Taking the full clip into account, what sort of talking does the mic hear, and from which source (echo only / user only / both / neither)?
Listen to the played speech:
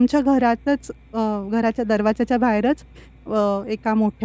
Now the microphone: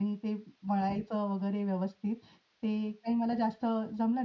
user only